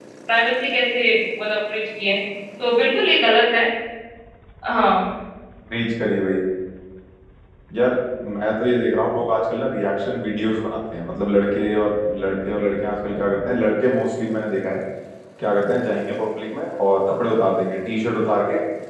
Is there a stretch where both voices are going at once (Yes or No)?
No